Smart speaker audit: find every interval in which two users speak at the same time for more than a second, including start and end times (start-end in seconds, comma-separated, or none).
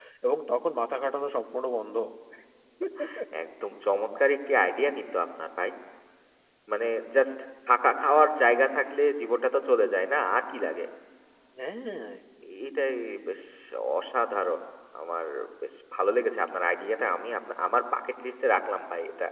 none